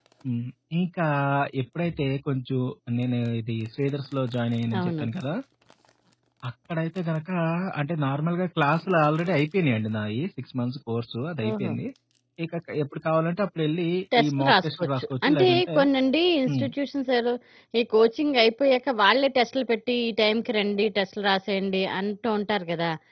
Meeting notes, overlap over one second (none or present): present